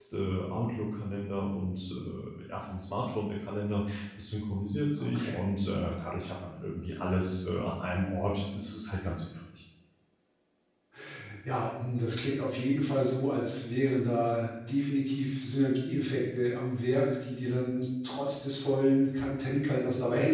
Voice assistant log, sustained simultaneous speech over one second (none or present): none